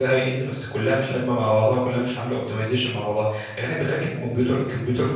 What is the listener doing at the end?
listening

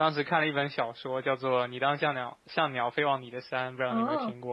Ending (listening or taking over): taking over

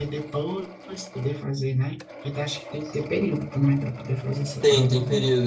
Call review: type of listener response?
taking over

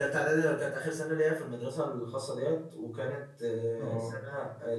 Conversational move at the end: listening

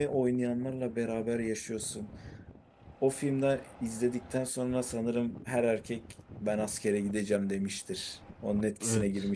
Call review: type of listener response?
taking over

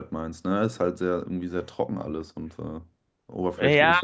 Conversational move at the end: taking over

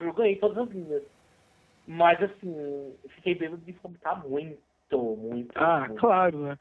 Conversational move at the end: taking over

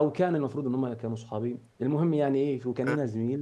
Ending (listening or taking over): listening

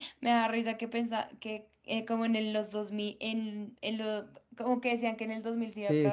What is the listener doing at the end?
taking over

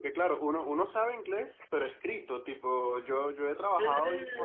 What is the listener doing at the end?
listening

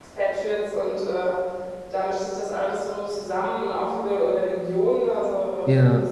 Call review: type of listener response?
listening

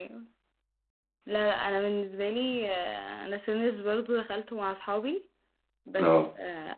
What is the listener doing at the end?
listening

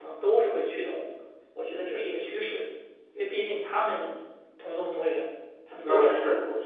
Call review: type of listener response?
taking over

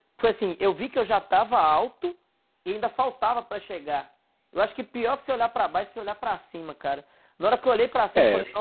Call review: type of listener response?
listening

